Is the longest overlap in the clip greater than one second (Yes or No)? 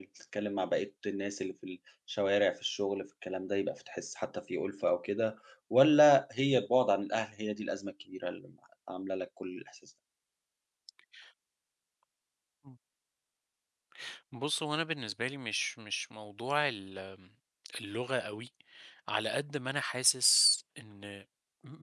No